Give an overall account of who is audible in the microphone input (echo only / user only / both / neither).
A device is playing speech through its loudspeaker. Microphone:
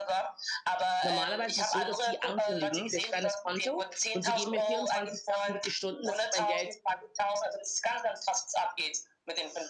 both